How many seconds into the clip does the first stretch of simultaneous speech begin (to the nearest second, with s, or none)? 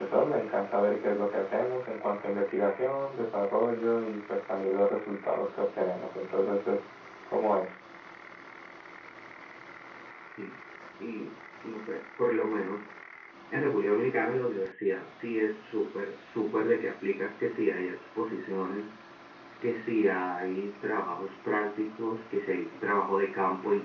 none